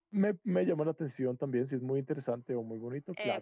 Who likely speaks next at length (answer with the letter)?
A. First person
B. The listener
B